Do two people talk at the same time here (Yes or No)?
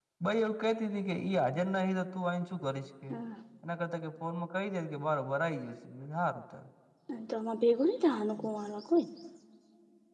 No